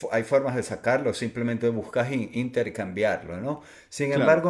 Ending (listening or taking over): listening